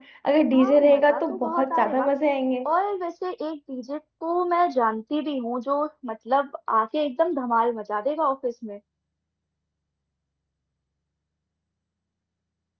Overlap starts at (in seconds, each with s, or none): 0.6 s